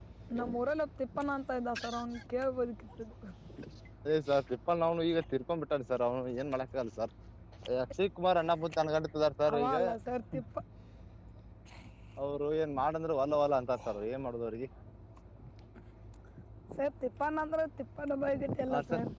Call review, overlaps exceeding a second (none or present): none